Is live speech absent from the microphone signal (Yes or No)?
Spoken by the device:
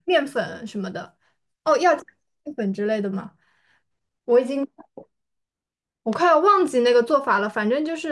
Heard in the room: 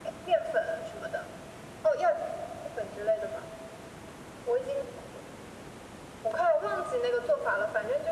Yes